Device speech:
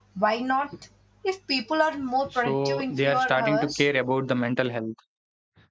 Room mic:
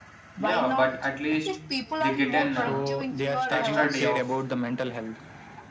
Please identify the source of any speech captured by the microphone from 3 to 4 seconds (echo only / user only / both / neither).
both